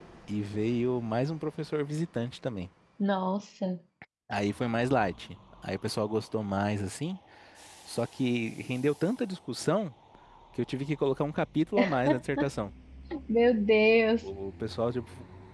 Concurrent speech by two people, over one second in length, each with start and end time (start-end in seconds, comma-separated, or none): none